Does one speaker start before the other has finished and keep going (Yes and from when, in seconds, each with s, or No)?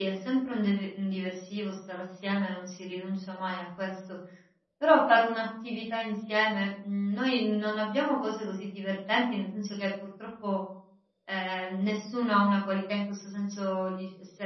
No